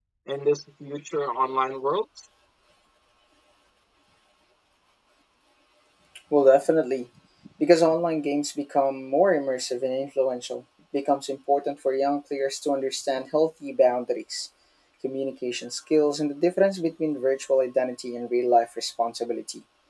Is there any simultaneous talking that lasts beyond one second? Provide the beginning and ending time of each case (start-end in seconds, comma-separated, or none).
none